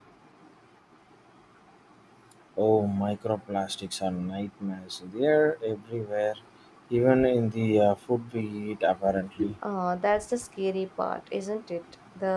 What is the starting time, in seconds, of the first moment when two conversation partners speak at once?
none

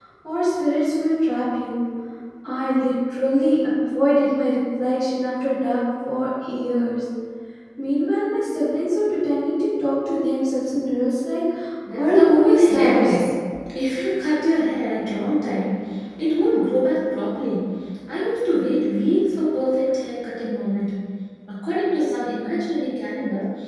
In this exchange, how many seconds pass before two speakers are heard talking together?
12.0 s

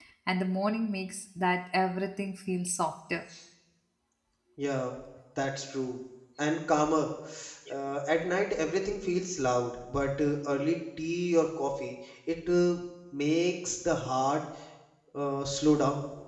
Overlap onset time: none

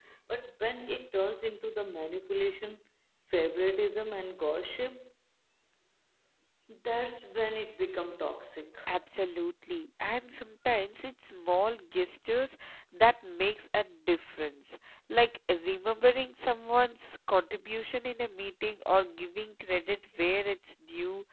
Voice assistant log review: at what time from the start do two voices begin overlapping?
none

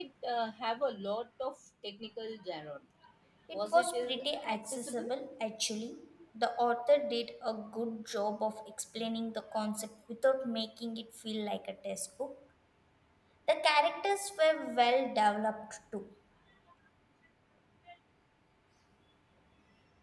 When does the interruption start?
3.5 s

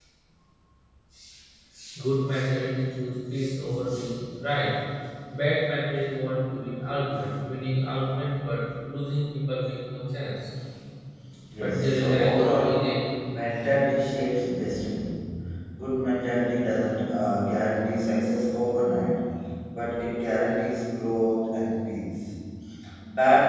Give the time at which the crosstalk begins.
11.6 s

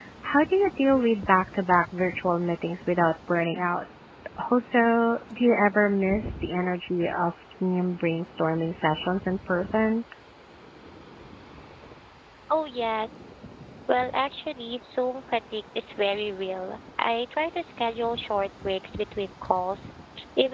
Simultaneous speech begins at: none

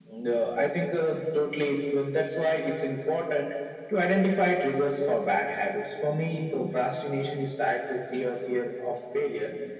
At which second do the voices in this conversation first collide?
none

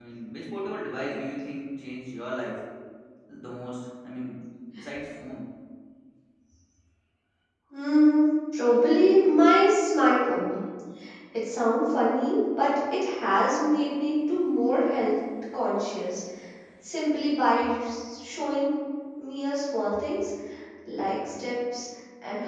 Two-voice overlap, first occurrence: none

